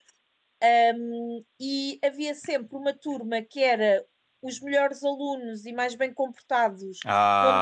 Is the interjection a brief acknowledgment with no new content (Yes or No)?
Yes